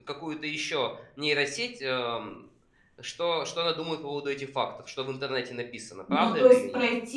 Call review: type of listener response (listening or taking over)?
taking over